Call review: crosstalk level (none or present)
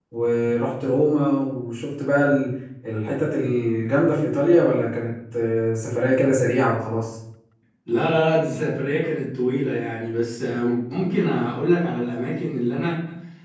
none